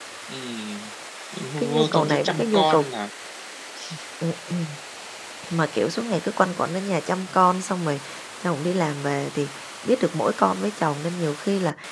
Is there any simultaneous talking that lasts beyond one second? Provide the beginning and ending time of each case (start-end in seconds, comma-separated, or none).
1.6-2.9